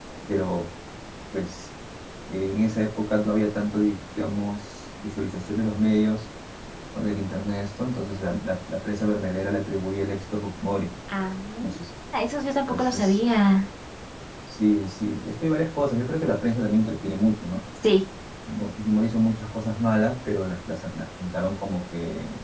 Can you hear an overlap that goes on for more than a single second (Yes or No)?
No